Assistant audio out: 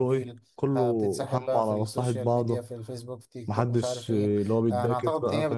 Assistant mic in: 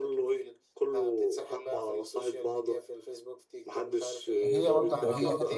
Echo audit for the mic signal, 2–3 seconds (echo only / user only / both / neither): echo only